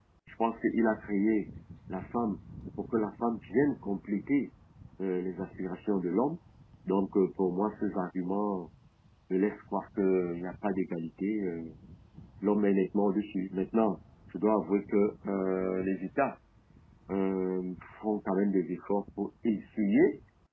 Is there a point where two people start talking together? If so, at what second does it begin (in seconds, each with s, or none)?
none